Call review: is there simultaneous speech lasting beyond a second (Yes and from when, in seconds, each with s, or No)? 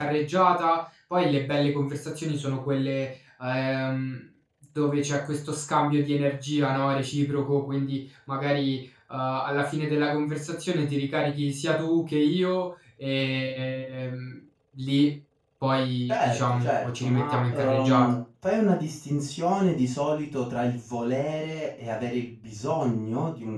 Yes, from 16.1 s